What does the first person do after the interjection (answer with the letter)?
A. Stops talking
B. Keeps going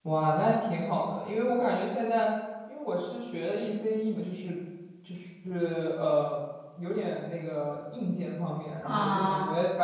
B